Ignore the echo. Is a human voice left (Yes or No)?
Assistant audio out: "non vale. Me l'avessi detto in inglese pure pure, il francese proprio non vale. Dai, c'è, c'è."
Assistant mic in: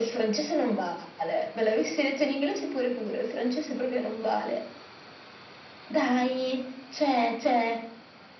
No